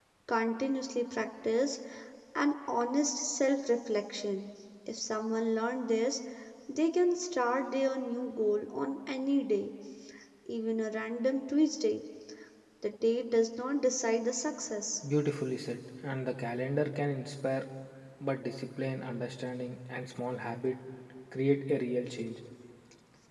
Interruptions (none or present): none